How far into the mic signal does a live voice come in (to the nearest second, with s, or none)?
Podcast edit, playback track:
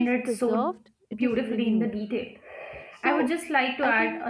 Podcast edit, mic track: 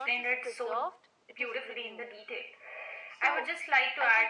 none